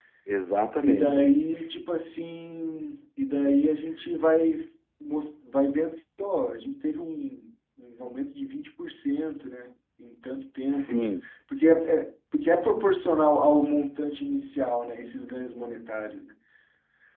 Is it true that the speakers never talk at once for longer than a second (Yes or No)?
Yes